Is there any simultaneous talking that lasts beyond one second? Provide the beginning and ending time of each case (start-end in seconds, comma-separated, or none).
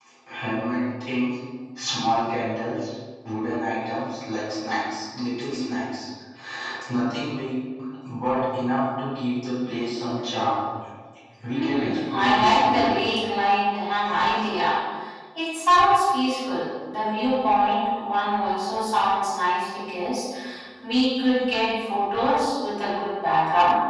11.5-13.0